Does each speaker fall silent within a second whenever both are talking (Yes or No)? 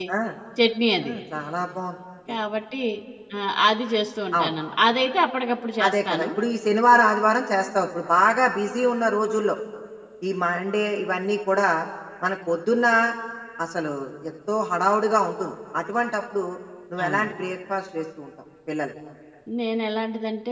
Yes